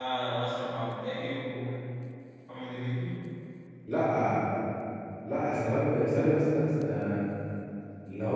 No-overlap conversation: Yes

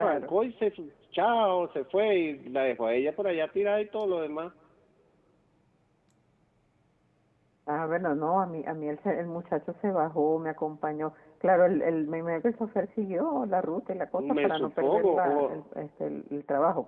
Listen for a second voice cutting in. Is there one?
Yes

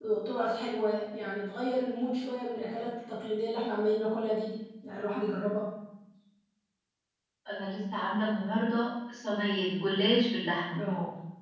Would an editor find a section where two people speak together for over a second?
No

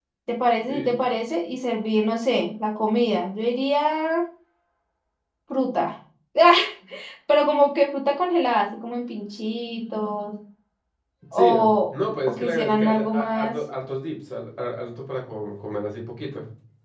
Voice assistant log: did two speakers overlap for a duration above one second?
Yes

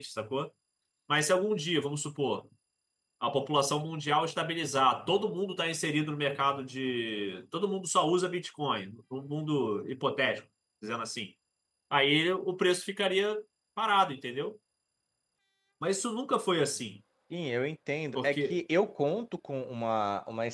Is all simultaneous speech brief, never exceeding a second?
Yes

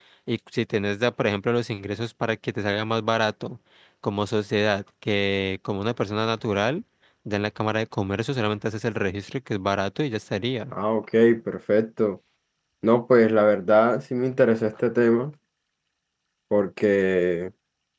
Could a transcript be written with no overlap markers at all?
Yes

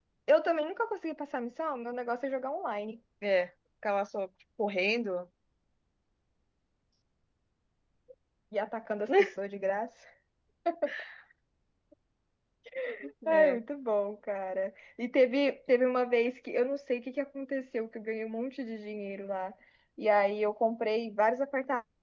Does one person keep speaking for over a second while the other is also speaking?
No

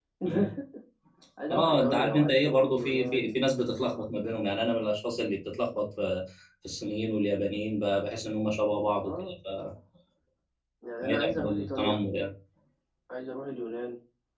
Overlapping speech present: Yes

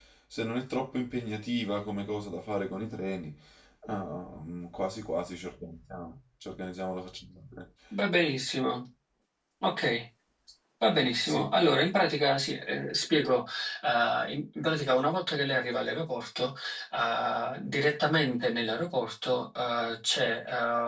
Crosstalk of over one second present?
No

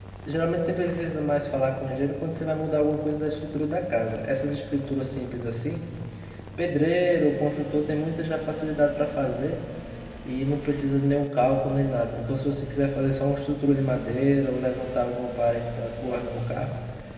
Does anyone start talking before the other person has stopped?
No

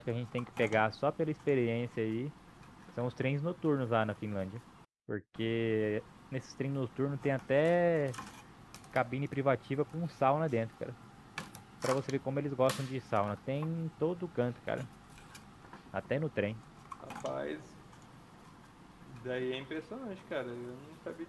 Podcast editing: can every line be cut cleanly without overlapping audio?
Yes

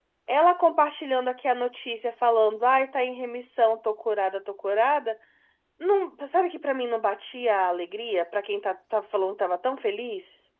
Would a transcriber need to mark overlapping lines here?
No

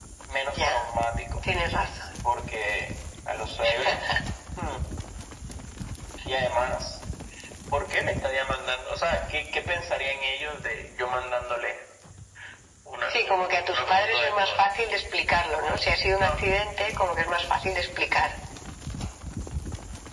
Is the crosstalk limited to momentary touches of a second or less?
No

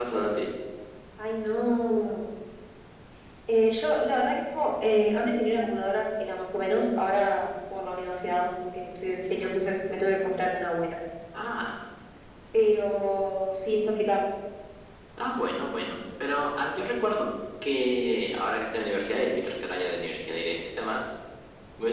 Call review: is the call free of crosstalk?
Yes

